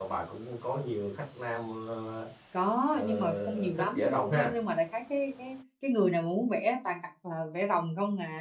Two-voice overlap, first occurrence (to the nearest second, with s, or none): 3 s